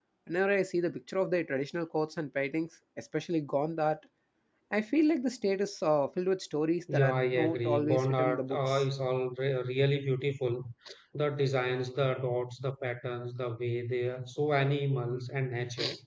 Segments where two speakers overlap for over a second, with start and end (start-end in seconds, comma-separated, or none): 6.9-8.8